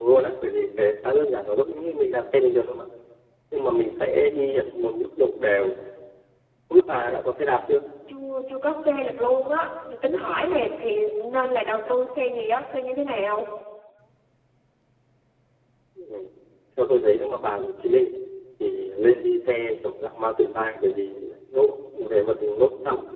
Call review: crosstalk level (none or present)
none